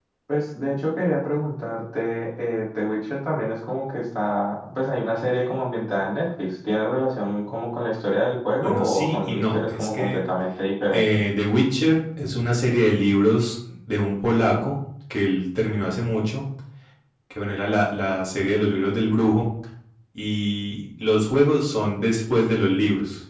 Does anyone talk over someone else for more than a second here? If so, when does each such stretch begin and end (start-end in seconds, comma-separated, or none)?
8.6-10.3